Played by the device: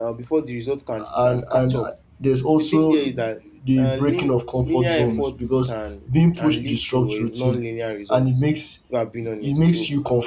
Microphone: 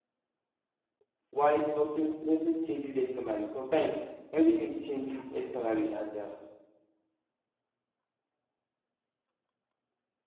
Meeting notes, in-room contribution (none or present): present